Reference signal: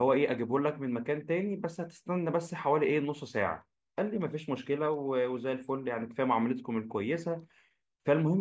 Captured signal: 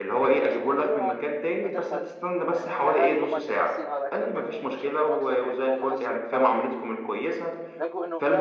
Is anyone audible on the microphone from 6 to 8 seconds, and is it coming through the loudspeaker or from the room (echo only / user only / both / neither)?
both